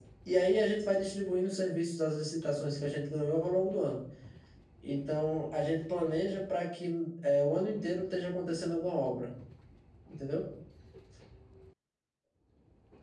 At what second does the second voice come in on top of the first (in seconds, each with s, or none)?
none